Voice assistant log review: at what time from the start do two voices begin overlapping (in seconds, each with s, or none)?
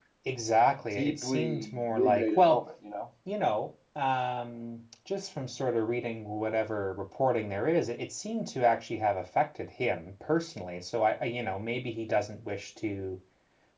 0.9 s